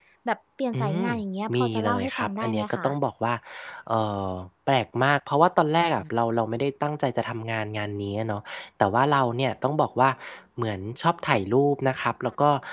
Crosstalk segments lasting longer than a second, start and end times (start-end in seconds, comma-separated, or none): 1.6-2.9